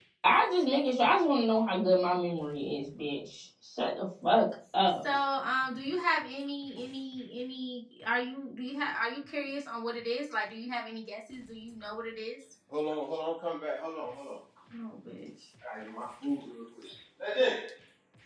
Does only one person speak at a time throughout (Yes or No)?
Yes